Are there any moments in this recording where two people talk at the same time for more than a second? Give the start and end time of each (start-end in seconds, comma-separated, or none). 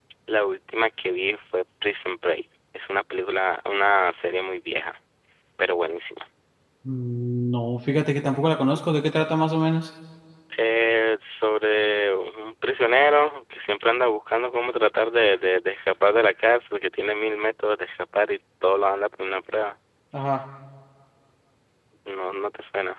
none